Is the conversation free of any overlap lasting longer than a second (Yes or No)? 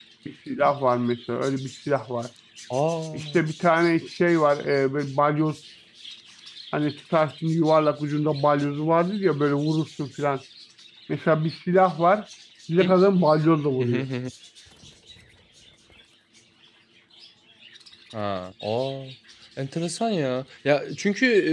Yes